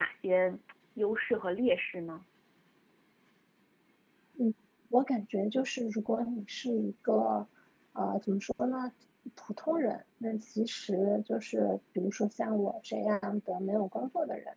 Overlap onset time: none

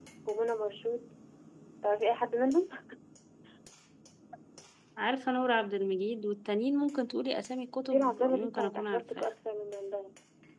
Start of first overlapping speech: 7.9 s

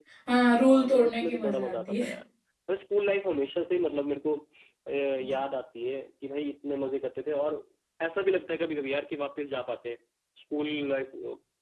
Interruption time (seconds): 0.6 s

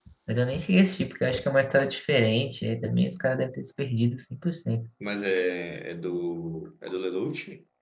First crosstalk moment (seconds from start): none

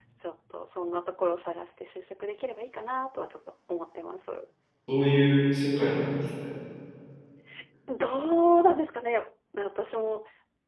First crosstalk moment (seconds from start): none

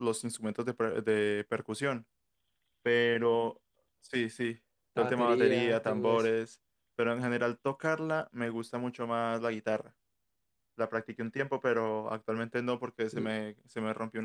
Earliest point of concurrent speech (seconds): 5.0 s

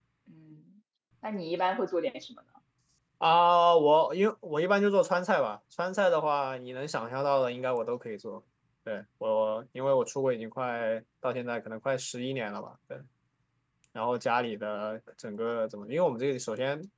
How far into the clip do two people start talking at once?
none

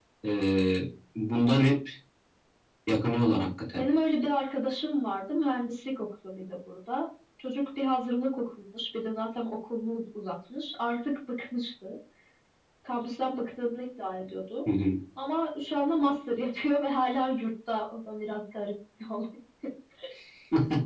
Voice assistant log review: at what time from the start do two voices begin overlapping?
none

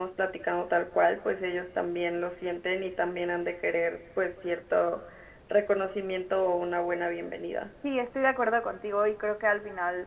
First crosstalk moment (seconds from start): none

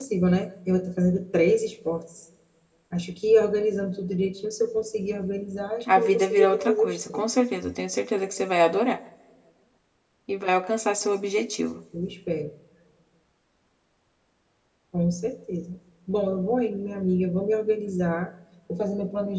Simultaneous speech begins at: 5.9 s

